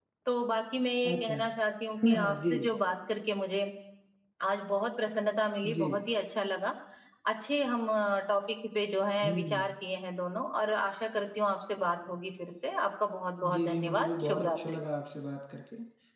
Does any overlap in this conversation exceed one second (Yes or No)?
Yes